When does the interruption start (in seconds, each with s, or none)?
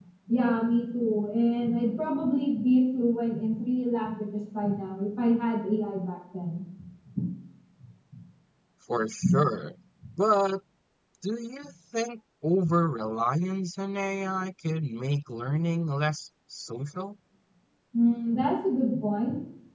none